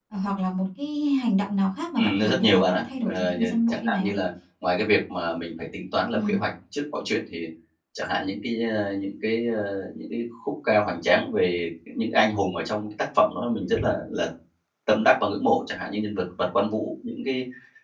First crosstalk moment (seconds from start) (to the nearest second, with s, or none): 2 s